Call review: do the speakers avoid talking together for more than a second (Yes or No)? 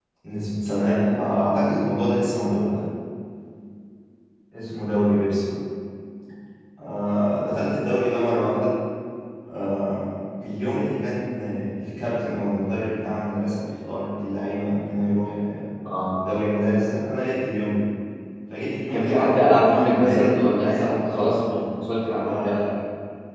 No